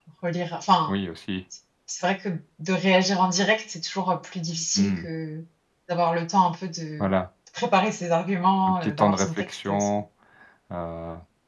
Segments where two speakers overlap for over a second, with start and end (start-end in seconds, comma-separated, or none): 8.7-9.9